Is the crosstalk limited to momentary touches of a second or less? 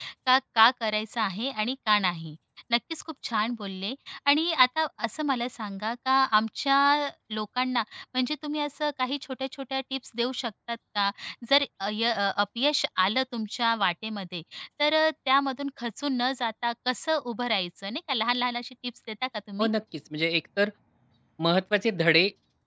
Yes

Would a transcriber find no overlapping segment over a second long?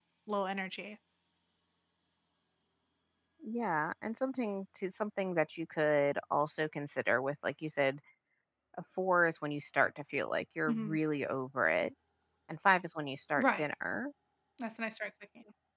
Yes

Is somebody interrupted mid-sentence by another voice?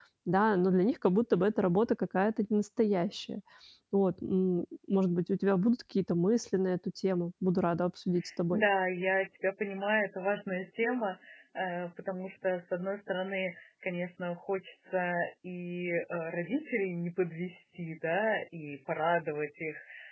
No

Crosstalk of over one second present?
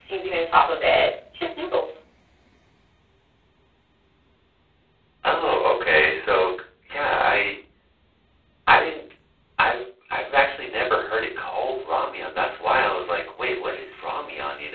No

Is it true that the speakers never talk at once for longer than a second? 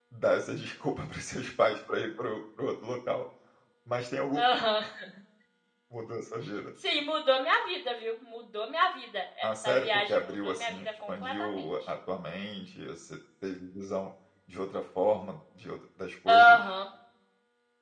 No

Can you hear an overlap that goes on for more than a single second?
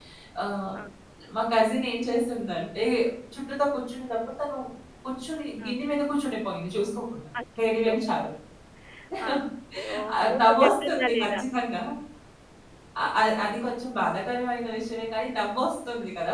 Yes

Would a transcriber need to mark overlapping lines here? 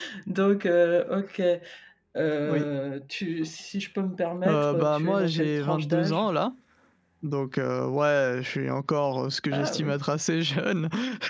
Yes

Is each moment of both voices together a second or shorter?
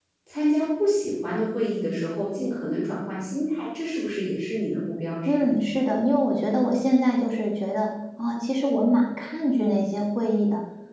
Yes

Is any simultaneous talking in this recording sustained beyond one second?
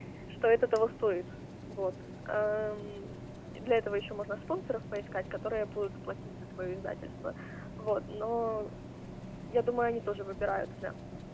No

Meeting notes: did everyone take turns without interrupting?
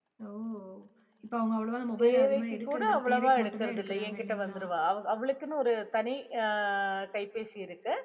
No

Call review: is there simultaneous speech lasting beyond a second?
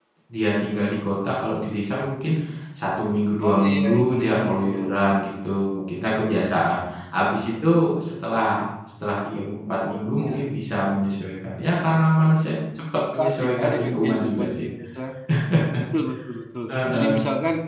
Yes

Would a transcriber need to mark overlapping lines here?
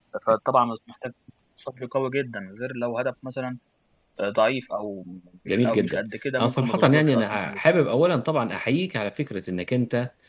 Yes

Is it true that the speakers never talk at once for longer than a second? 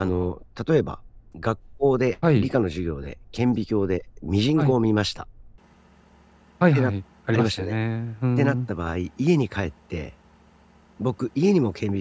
Yes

